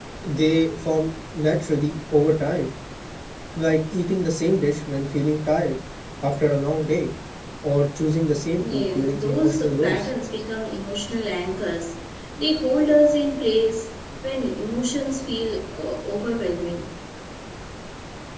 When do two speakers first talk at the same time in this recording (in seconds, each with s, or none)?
8.5 s